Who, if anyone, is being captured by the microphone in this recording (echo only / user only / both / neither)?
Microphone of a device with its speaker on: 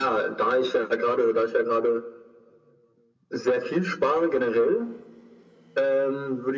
echo only